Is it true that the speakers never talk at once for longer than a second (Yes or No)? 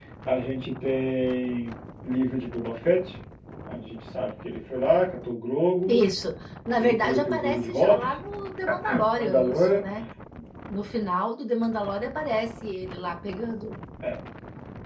No